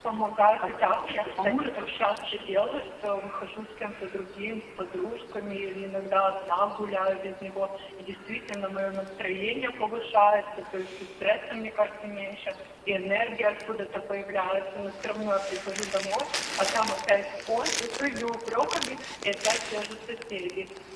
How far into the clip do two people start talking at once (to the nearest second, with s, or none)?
1 s